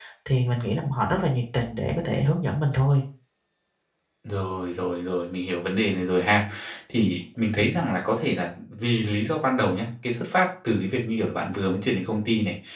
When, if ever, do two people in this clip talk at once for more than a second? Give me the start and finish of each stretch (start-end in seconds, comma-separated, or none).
none